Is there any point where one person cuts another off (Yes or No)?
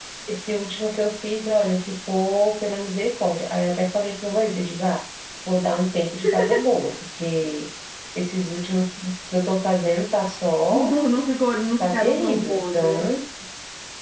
Yes